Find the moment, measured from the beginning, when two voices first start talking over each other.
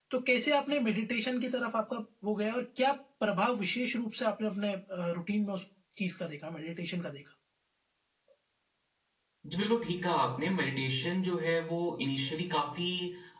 none

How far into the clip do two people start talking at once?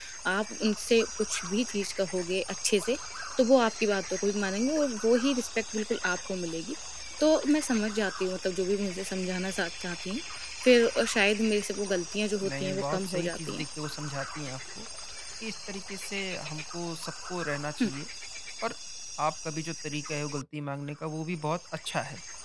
12 s

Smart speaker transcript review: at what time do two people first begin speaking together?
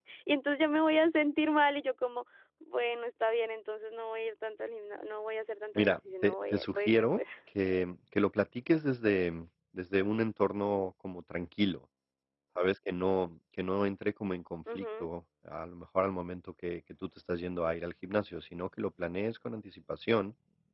6 s

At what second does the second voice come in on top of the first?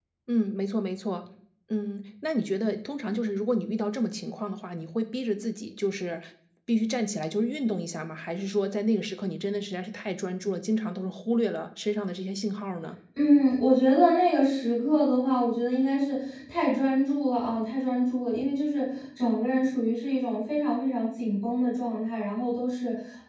none

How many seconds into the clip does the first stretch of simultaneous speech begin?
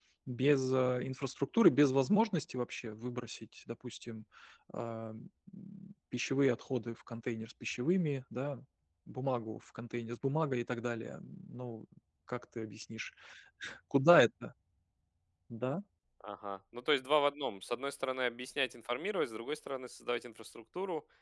none

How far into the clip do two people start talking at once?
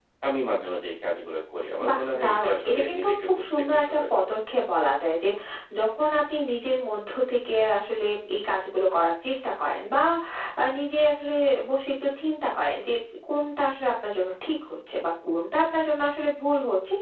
2 s

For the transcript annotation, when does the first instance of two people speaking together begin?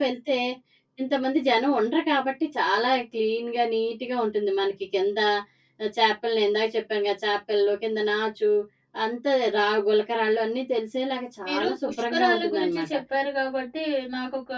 11 s

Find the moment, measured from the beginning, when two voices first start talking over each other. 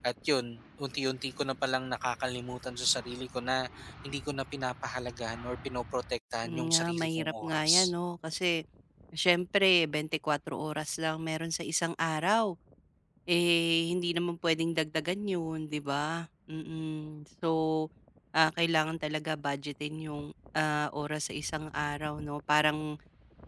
6 s

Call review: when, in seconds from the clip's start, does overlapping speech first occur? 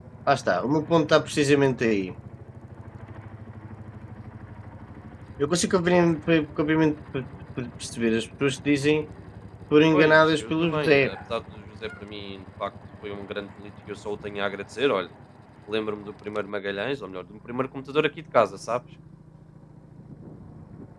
10 s

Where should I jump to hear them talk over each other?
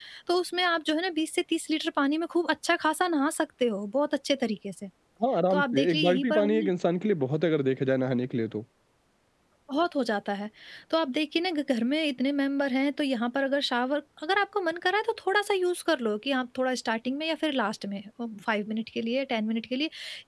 6 s

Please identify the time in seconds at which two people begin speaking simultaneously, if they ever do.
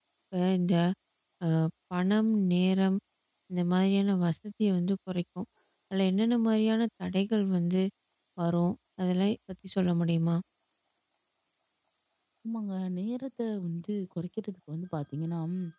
none

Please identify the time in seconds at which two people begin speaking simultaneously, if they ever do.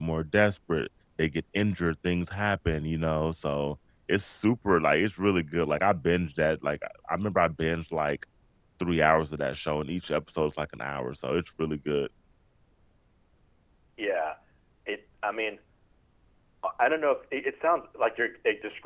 none

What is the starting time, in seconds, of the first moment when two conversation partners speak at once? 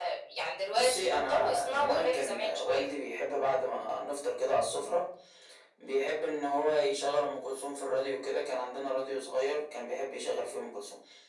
1 s

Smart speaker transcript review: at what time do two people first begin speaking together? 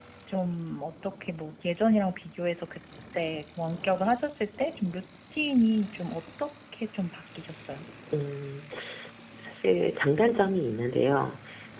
none

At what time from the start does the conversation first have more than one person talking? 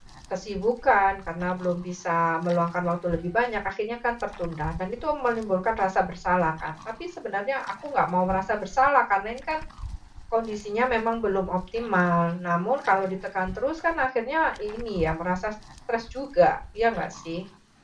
none

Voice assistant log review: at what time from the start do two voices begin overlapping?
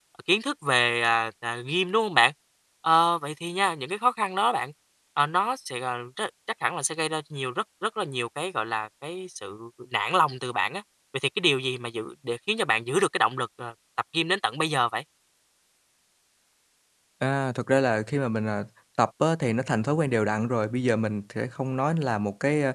none

